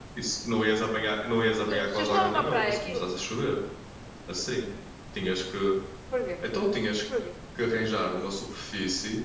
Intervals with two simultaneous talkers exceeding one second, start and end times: 1.7-3.0

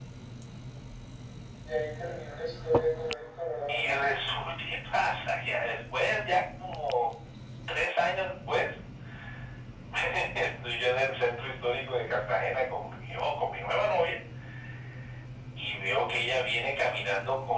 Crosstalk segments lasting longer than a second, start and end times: none

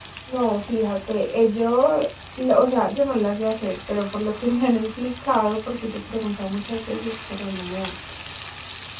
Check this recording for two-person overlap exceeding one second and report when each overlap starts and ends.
none

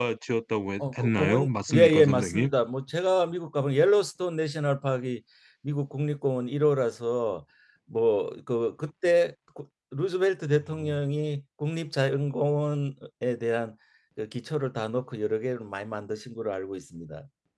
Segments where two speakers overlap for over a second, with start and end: 0.8-2.5

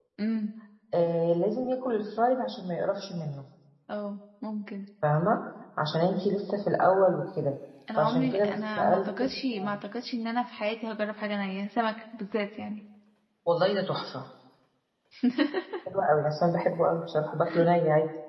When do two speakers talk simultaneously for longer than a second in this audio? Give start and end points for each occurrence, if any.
7.9-9.3

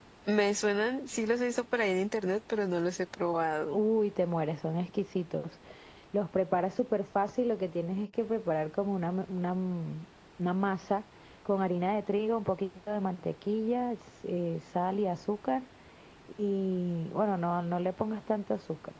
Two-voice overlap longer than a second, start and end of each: none

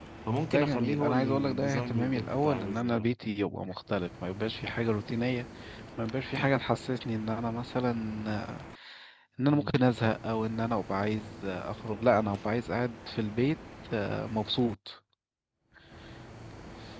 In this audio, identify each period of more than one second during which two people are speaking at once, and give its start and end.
0.5-3.1

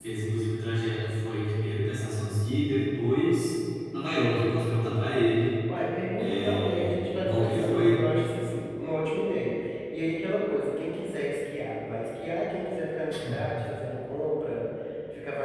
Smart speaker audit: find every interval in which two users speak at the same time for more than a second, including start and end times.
6.2-8.0

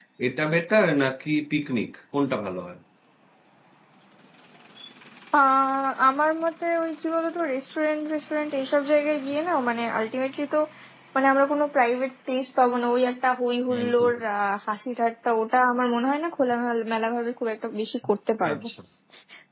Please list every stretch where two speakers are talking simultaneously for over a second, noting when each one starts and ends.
none

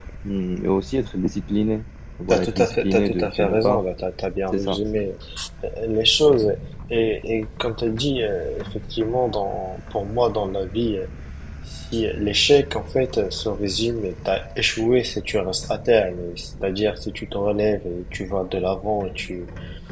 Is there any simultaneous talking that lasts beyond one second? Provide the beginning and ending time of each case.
2.3-3.8

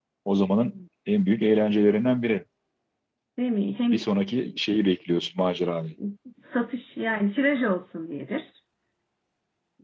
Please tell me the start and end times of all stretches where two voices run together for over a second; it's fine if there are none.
none

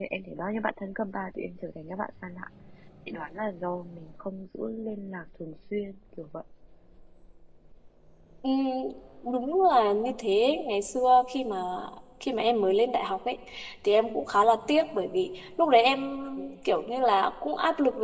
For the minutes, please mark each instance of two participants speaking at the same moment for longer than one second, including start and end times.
none

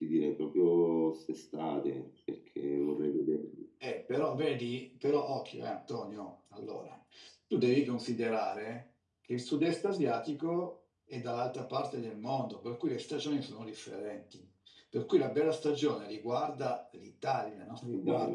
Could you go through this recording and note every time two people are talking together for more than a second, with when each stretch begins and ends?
none

